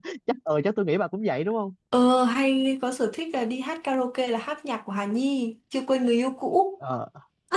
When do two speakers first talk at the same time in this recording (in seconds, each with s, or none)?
none